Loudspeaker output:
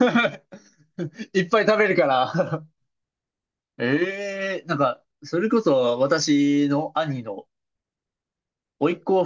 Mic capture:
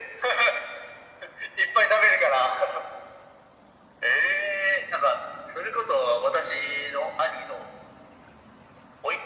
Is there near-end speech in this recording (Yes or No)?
No